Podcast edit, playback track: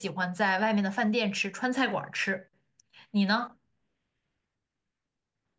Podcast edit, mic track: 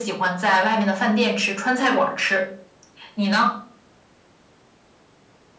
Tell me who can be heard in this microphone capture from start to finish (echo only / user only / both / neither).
echo only